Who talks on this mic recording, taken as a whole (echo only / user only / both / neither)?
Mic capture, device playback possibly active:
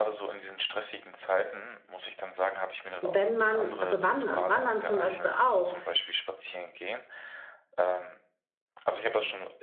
both